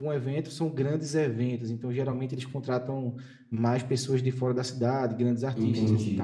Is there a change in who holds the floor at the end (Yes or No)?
Yes